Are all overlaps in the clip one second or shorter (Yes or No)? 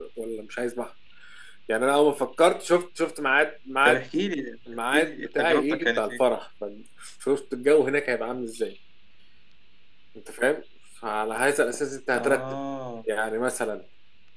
No